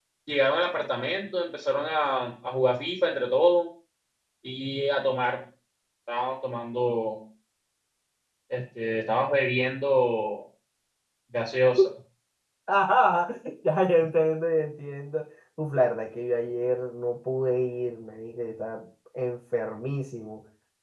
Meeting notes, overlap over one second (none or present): none